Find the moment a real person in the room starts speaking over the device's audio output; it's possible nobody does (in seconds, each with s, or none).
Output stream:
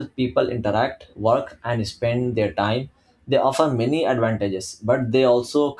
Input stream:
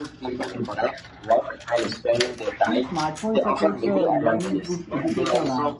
2.6 s